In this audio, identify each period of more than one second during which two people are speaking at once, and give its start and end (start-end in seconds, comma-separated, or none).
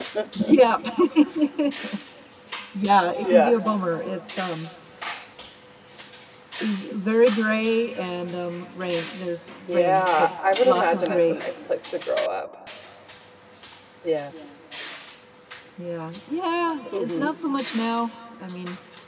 9.7-11.4